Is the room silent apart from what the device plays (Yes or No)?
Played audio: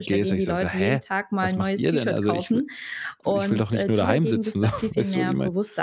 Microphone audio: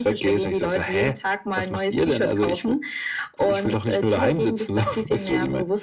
Yes